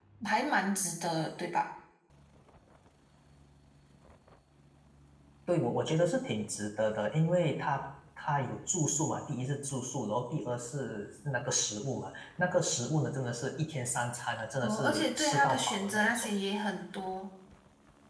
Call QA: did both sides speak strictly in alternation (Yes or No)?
No